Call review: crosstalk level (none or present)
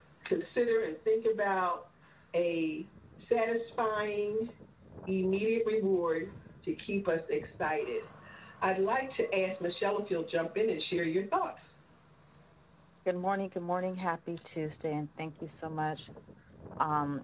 none